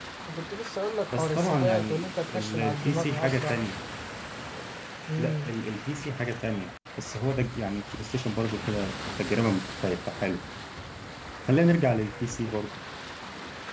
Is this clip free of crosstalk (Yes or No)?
No